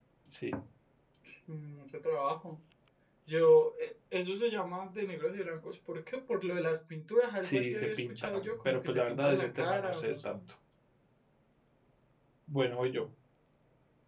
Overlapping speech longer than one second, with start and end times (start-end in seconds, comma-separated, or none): 7.4-10.4